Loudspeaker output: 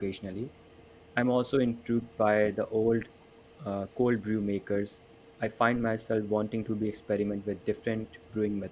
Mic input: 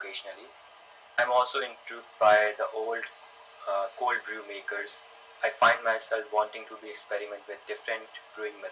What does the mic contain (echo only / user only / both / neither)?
echo only